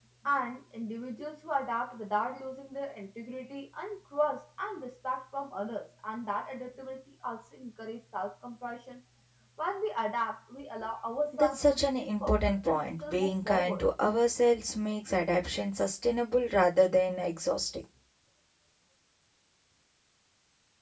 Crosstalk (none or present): present